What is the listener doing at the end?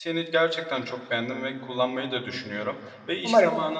listening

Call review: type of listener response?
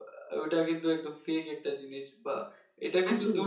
listening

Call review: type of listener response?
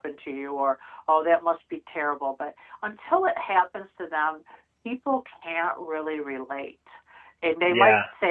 listening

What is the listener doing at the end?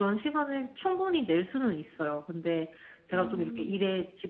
listening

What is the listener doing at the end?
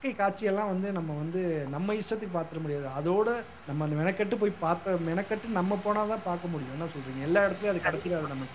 taking over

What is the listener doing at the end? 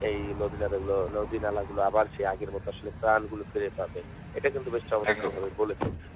listening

